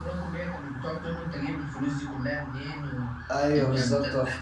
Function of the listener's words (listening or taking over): taking over